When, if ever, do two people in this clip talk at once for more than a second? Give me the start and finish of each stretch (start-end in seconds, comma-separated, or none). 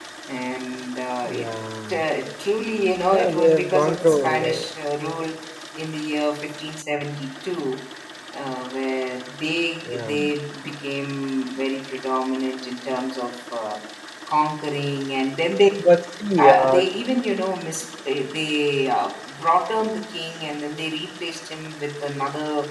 3.1-4.7